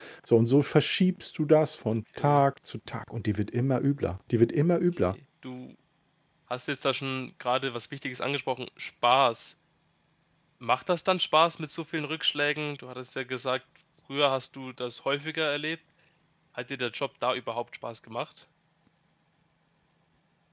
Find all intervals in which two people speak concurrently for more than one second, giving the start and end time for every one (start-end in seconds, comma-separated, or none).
none